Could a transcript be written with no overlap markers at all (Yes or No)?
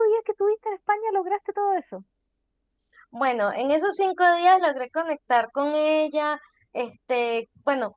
Yes